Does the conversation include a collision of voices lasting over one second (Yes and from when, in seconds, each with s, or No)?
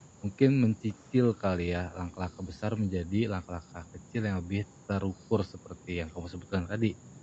No